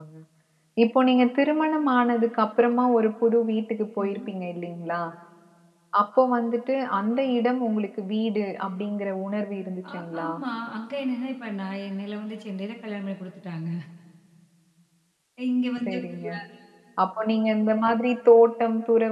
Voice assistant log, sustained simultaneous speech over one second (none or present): none